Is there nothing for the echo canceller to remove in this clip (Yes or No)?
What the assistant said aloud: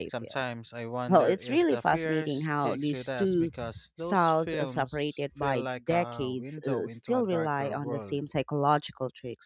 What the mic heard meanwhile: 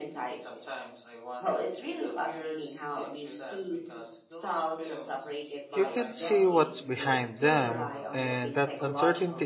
No